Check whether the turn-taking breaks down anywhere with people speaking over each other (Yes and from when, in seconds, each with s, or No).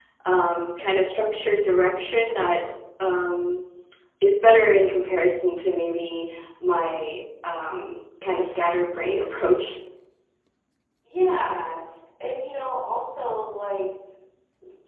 No